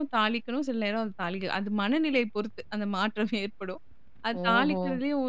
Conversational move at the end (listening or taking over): listening